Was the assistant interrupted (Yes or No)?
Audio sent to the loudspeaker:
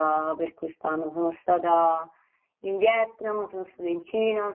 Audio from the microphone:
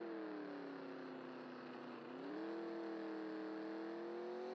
No